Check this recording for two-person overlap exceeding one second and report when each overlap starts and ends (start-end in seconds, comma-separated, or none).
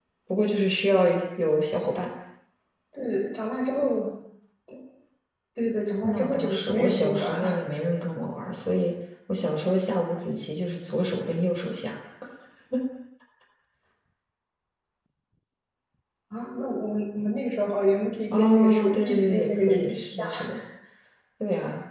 6.0-7.6, 18.4-20.3